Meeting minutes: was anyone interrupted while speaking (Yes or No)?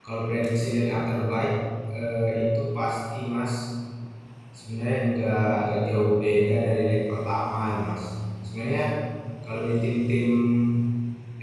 No